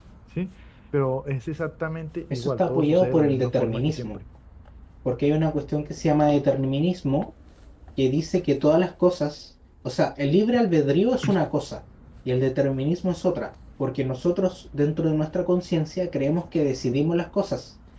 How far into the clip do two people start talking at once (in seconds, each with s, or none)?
2.3 s